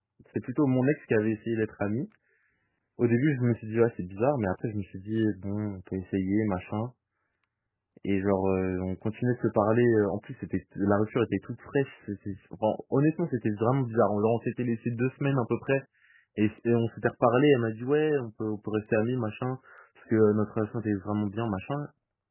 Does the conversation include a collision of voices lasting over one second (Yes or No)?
No